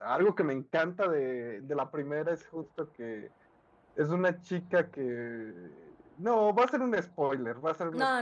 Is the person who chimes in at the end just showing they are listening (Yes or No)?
No